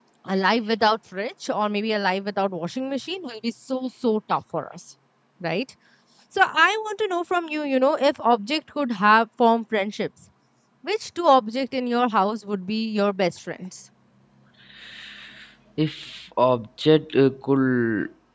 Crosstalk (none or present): none